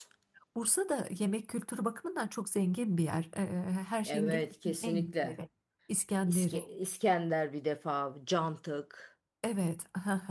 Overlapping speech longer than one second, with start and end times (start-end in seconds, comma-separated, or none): 4.1-5.4